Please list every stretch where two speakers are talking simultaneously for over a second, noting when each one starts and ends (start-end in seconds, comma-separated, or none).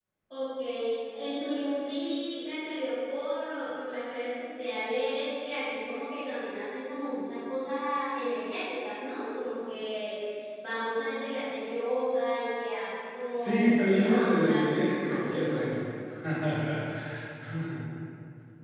13.4-15.6